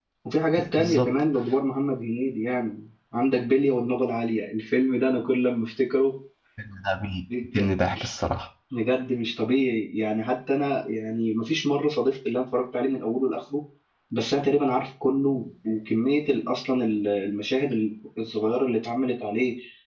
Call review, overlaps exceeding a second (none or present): none